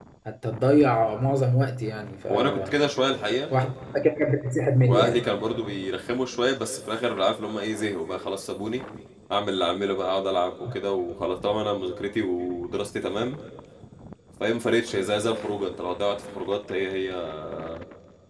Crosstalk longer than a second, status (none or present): none